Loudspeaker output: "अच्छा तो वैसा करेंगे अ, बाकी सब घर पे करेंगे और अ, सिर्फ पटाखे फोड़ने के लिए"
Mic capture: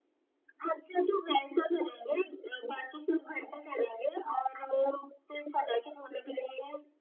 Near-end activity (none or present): none